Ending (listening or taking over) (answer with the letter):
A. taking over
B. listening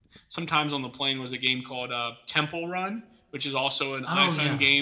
B